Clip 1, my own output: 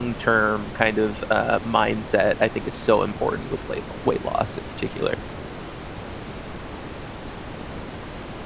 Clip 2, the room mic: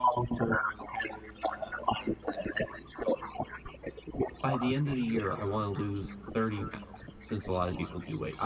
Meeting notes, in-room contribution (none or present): present